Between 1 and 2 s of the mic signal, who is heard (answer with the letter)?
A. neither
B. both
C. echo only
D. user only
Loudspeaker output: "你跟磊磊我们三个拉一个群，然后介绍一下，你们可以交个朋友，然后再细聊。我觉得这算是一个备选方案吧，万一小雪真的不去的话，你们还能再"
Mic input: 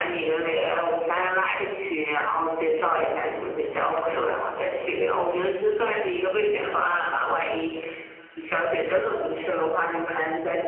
C